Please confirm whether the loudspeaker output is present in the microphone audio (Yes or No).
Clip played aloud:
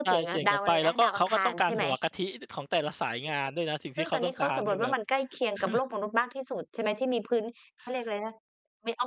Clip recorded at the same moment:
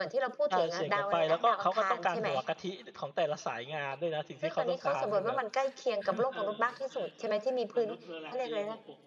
Yes